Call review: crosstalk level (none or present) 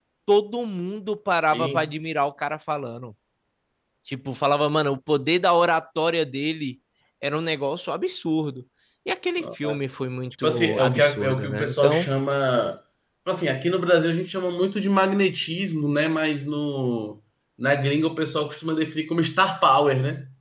present